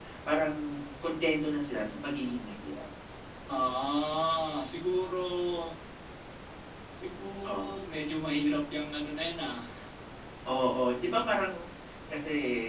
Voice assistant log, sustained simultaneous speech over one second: none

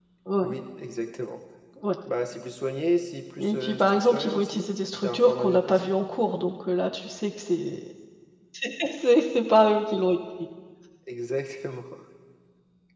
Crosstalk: present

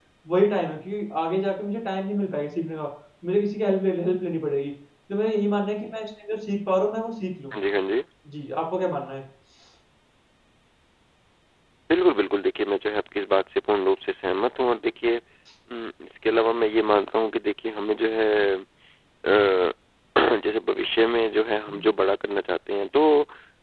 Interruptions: none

